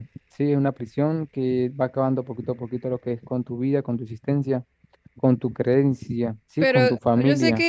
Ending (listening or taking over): taking over